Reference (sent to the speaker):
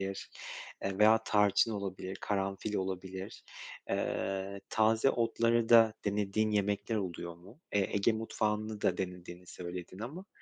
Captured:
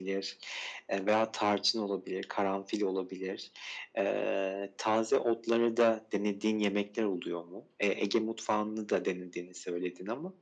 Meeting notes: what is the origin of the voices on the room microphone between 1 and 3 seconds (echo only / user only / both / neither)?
echo only